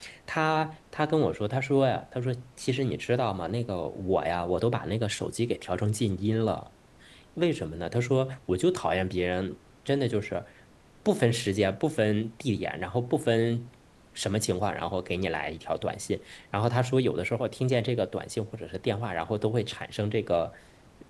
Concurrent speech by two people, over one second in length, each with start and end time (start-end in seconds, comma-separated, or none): none